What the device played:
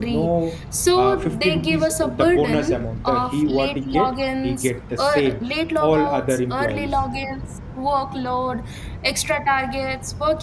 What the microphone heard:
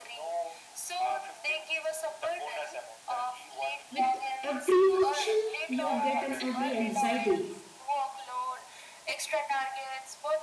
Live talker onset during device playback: 3.9 s

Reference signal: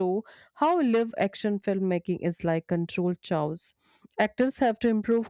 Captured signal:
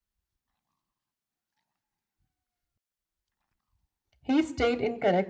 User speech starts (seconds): 4.2 s

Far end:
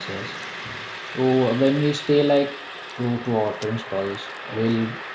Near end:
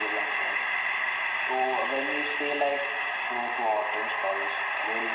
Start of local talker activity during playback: none

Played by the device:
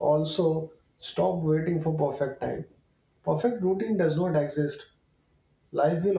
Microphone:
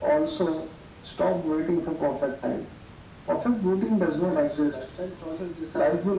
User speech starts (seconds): 4.3 s

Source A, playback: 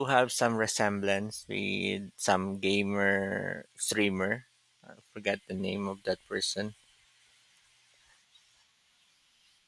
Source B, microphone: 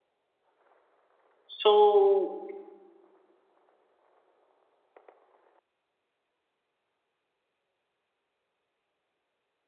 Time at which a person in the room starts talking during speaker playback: 1.5 s

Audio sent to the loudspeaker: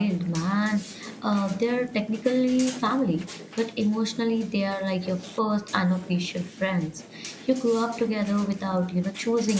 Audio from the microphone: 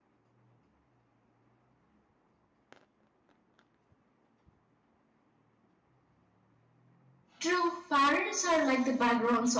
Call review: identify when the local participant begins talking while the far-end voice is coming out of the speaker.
7.4 s

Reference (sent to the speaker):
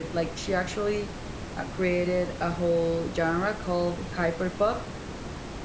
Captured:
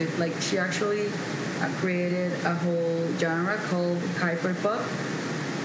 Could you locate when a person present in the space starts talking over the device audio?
none

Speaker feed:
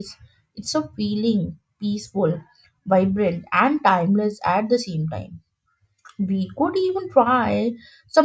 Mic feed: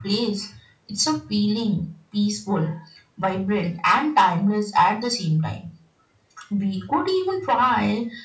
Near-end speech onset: none

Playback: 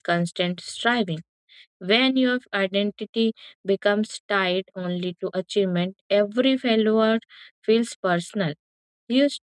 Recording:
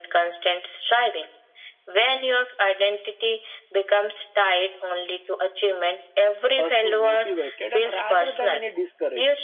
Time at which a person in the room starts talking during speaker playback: 6.6 s

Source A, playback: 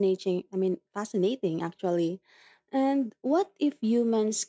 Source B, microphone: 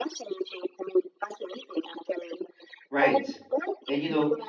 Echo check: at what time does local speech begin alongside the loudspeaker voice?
2.9 s

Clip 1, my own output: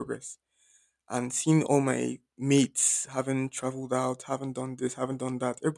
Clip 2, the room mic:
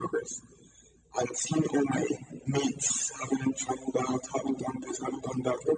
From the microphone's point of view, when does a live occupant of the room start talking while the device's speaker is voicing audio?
none

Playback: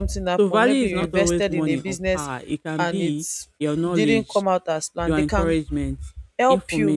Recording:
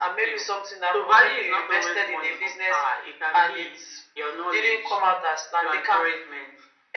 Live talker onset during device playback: none

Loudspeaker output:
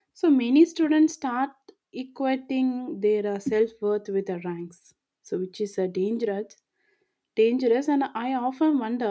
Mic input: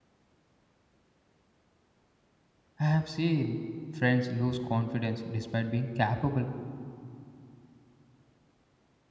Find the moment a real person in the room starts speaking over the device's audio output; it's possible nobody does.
2.8 s

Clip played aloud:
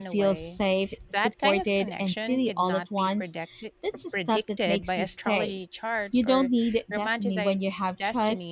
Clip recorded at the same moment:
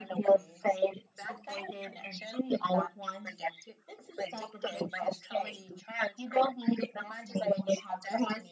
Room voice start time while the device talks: none

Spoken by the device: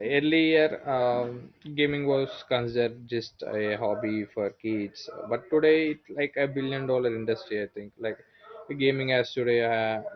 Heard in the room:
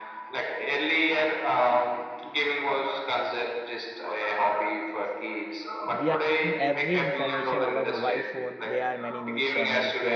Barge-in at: 5.9 s

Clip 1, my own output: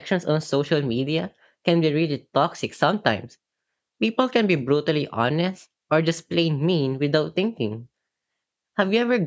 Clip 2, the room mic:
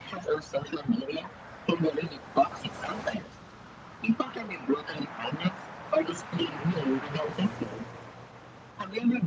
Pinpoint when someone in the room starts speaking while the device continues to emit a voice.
none

